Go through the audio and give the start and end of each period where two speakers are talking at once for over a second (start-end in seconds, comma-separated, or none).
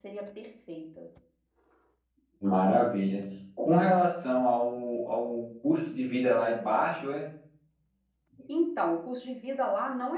none